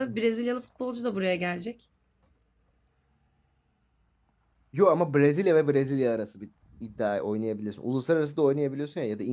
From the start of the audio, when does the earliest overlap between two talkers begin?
none

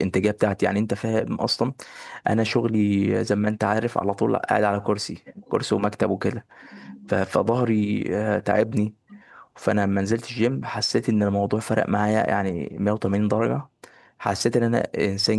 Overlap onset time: none

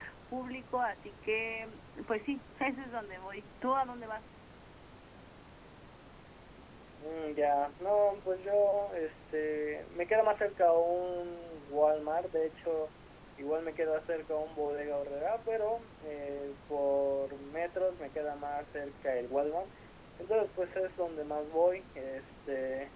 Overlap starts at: none

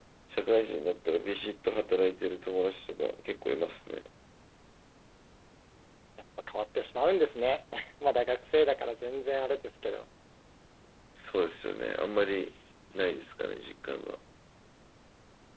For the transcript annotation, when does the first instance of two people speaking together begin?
none

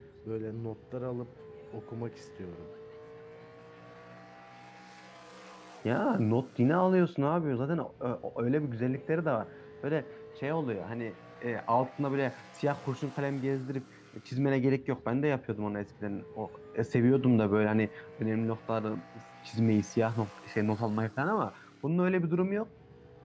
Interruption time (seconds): none

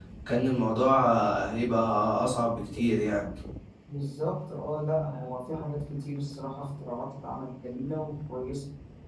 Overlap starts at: none

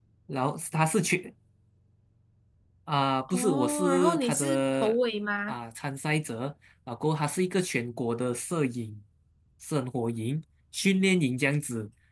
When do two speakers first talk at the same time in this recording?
3 s

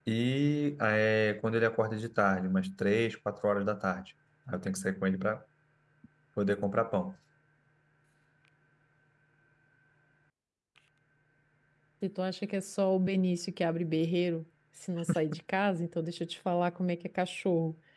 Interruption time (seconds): none

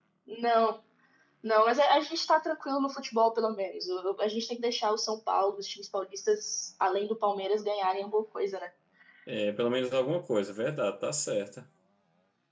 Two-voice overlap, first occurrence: none

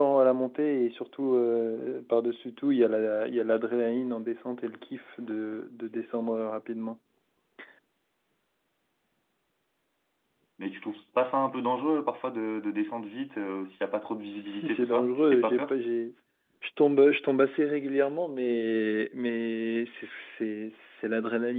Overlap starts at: 14 s

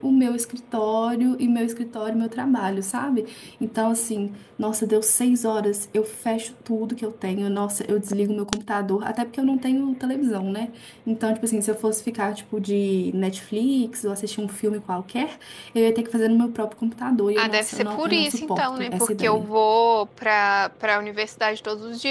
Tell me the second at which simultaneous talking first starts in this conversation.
17 s

